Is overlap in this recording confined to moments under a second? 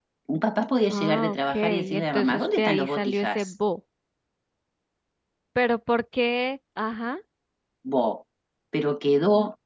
No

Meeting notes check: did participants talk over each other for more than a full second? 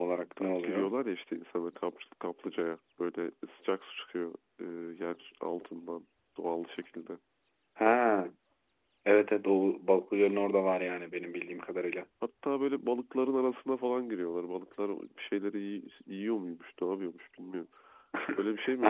No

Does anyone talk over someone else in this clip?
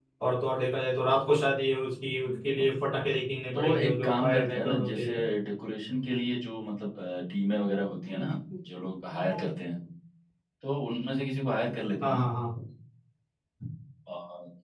Yes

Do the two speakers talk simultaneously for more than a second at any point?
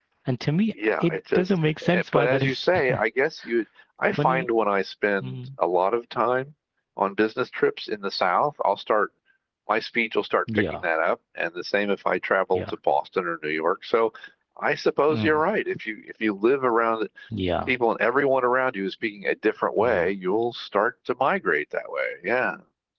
Yes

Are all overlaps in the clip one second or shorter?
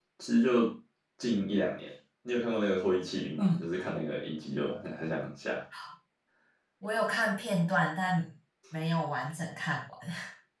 Yes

